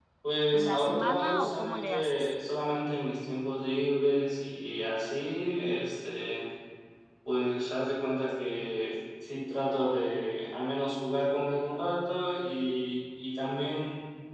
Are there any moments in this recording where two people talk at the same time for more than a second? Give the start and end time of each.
0.5-2.3

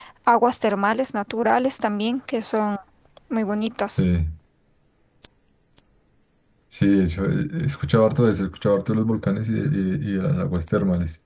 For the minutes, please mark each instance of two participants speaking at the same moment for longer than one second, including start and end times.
none

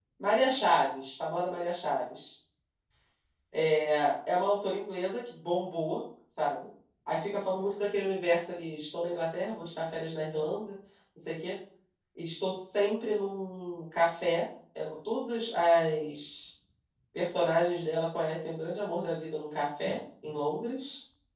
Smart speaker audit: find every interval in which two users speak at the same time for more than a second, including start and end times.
none

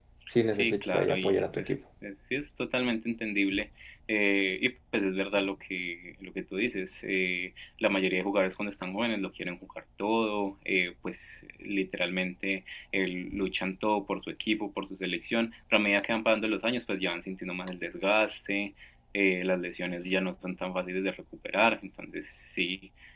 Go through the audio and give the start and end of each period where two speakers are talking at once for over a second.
0.5-1.7

